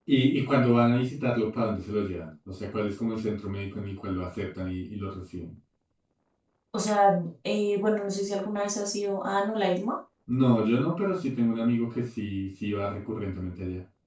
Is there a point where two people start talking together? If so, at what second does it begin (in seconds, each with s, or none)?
none